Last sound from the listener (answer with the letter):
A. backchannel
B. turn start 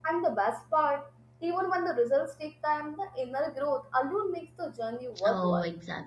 B